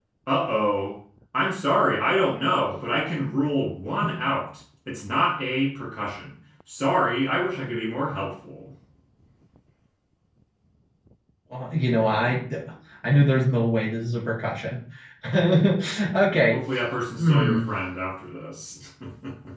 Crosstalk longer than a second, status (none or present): none